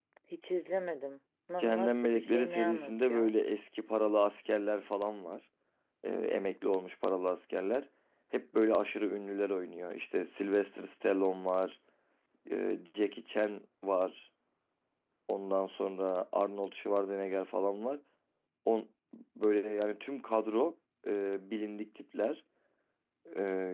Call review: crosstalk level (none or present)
present